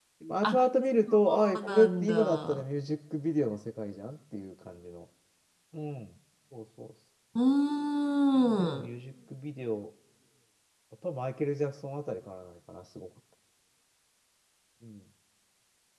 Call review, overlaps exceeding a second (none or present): present